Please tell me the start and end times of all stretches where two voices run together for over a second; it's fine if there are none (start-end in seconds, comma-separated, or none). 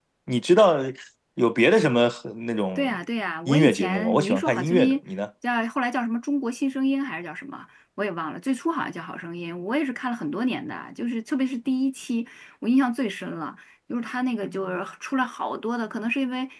3.5-5.0